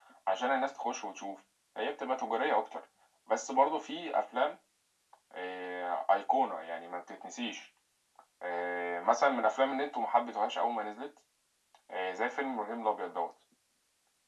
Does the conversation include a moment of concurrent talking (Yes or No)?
No